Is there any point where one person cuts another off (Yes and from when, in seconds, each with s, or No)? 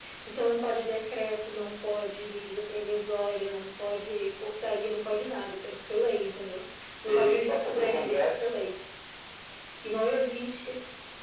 Yes, from 7.0 s